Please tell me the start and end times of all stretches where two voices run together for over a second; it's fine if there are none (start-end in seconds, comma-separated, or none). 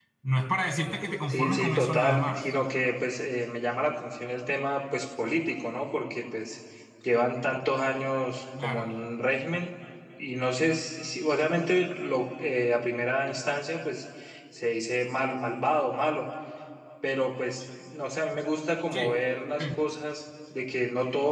1.3-2.5